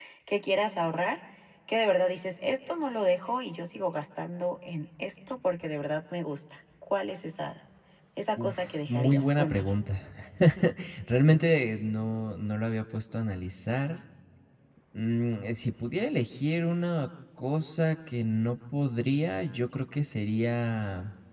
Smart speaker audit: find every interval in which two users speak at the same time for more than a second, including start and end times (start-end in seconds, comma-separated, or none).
8.4-9.7